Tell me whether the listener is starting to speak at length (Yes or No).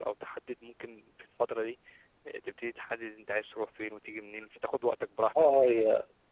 Yes